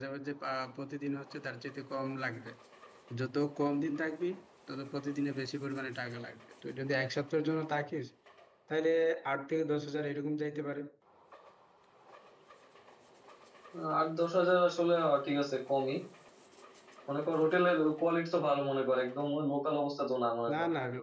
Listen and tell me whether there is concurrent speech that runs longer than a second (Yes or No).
No